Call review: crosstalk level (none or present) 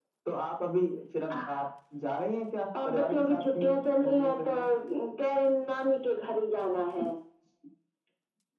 present